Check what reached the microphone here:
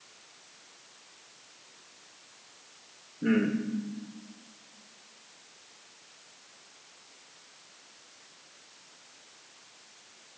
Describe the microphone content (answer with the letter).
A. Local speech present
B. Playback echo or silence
A